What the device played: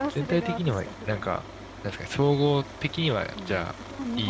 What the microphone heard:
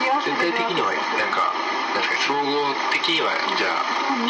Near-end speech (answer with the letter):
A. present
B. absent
B